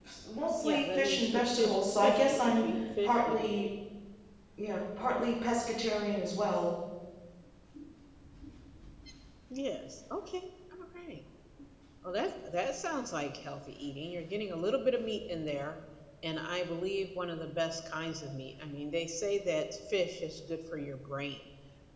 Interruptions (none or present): present